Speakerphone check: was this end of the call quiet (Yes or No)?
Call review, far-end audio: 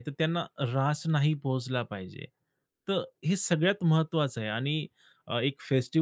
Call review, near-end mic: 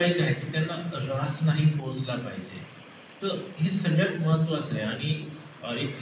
Yes